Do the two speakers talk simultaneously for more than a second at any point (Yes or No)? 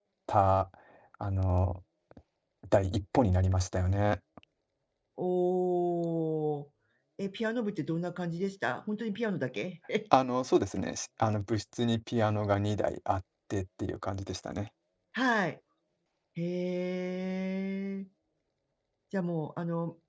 No